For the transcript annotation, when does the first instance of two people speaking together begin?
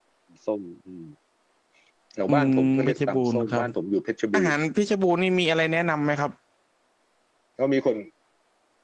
2.3 s

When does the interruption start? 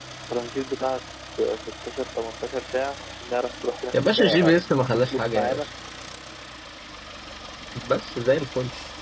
3.9 s

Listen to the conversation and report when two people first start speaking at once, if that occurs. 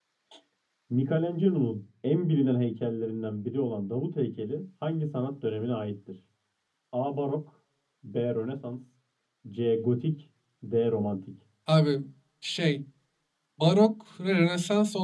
none

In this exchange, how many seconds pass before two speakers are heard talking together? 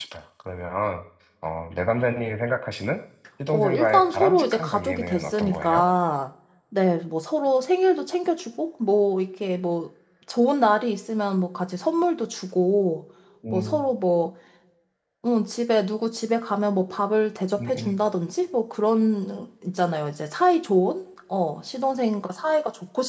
3.5 s

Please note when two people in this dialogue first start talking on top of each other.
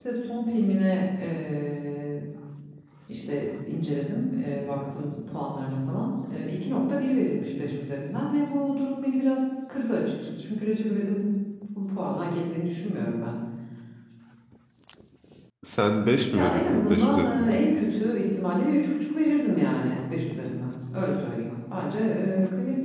16.4 s

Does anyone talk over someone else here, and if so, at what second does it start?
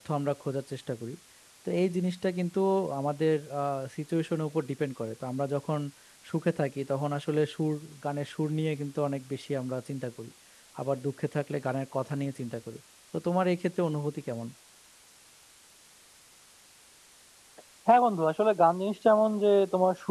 none

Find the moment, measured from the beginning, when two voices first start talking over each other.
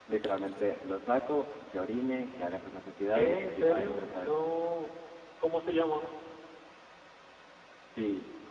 3.1 s

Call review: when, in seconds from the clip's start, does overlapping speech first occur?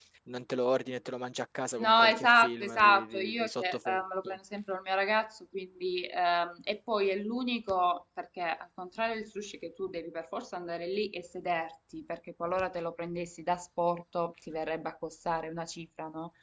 1.8 s

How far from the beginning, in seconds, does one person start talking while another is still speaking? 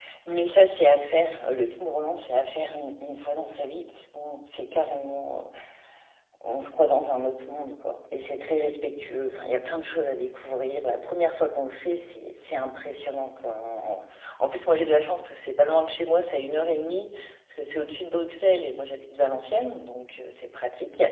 none

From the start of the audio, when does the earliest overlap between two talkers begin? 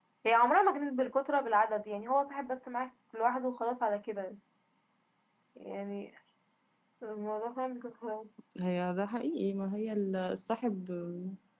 none

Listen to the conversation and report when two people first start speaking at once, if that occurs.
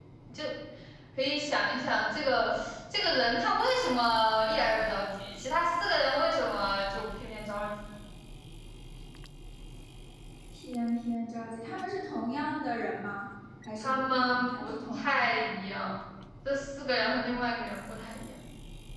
13.8 s

